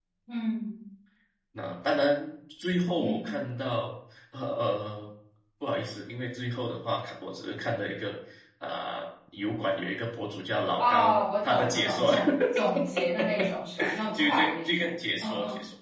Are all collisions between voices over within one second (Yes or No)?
No